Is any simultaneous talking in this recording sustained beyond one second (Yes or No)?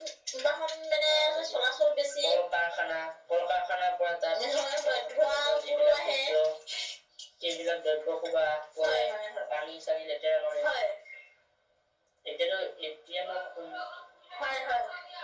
Yes